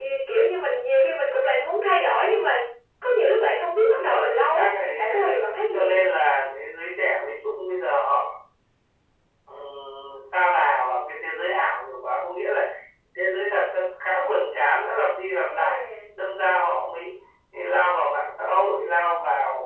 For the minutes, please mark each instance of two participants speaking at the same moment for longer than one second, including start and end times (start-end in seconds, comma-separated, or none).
3.8-6.1